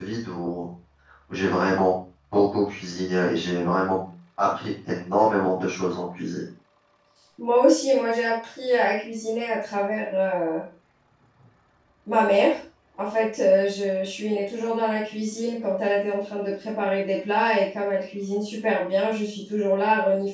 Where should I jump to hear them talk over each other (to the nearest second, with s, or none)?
none